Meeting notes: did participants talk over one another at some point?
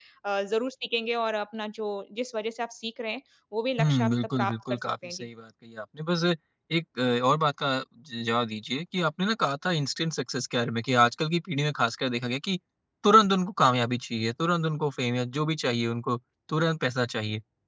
Yes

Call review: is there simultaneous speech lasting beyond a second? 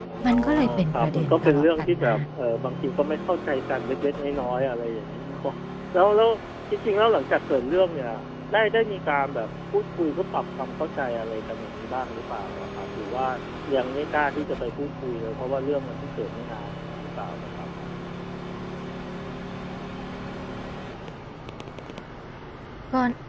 Yes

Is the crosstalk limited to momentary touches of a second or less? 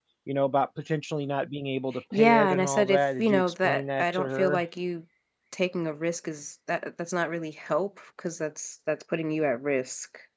No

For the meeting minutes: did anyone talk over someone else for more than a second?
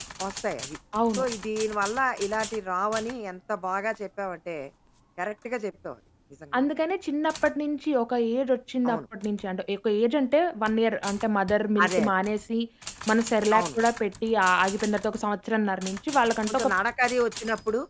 No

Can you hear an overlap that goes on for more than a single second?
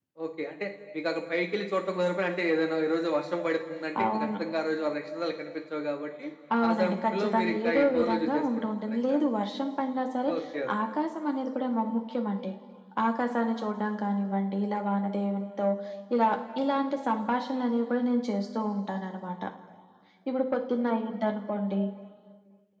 Yes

